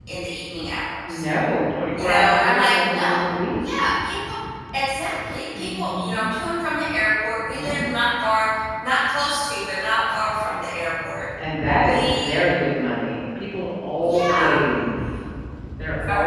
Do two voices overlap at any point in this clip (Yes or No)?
Yes